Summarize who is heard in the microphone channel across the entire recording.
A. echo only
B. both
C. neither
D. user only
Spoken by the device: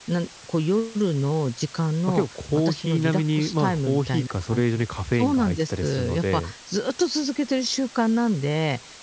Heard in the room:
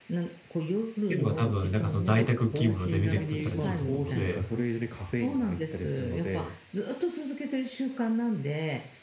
B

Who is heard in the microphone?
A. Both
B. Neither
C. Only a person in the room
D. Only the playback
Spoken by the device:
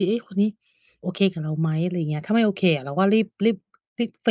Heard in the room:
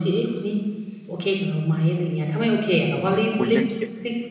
A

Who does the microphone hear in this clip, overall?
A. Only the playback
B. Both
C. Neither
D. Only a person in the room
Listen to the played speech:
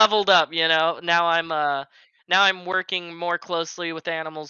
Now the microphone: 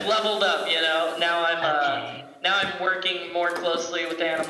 B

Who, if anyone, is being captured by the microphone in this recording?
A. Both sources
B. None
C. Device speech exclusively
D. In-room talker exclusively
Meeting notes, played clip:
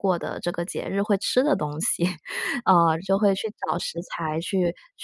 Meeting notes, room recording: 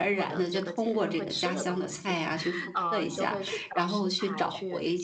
A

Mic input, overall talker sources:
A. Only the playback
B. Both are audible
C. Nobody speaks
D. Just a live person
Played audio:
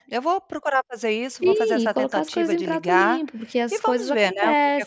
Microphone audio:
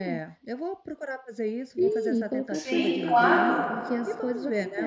B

